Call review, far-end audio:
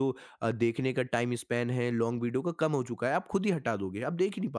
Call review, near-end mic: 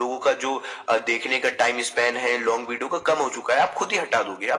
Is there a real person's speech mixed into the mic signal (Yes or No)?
No